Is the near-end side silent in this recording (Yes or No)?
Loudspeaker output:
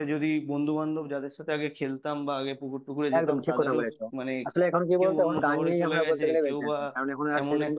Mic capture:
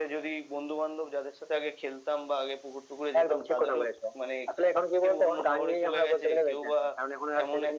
Yes